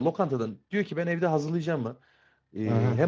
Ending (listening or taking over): listening